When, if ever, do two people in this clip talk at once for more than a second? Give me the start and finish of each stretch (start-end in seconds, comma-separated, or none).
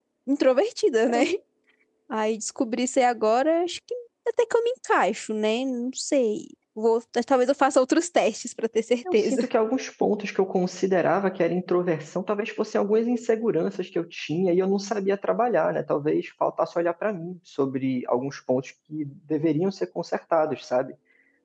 none